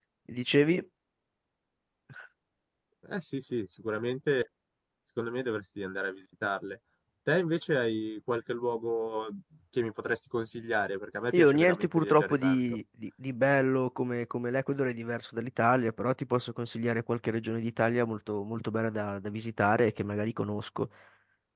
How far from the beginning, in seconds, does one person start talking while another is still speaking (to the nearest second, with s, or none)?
11 s